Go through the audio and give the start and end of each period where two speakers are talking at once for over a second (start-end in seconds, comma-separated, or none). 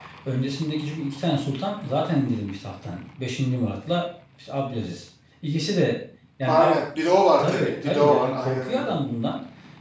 7.4-8.9